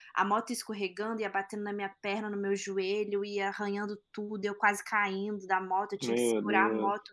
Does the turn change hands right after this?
No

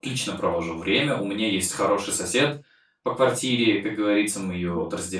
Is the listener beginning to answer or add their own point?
No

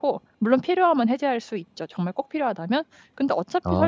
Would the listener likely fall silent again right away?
Yes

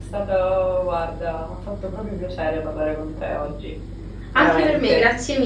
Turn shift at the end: Yes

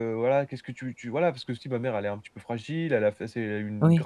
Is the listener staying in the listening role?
Yes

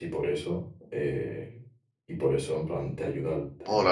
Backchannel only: No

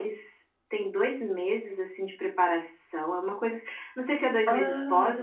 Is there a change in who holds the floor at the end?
No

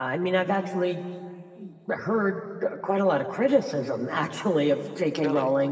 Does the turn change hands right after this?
No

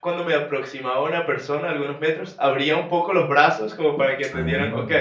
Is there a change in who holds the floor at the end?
No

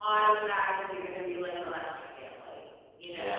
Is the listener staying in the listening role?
No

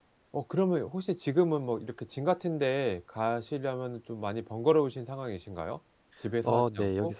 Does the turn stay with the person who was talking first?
No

